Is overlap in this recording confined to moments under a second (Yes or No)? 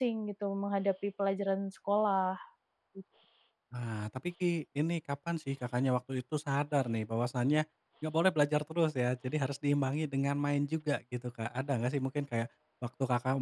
Yes